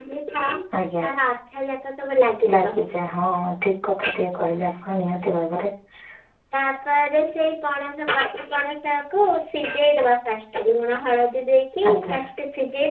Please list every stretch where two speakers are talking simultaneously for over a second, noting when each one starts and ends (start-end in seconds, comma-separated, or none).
none